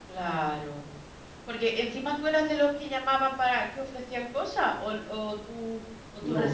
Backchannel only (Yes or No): No